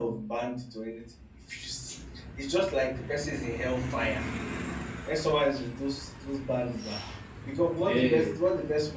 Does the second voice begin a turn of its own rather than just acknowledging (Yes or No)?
No